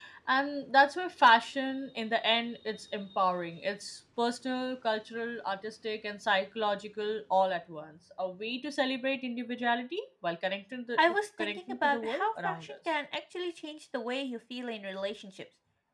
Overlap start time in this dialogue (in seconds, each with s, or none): 11.4 s